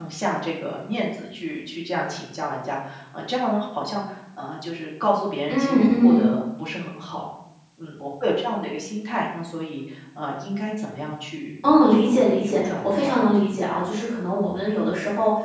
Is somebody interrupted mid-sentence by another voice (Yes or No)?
Yes